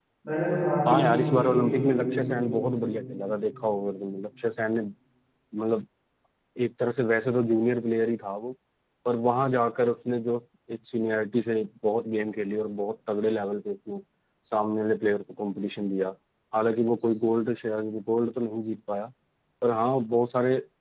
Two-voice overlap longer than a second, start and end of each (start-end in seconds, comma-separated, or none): 0.9-2.5